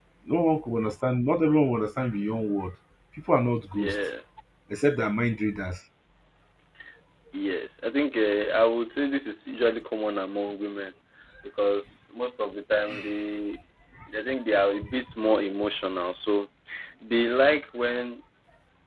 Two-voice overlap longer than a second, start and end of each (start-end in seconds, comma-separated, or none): none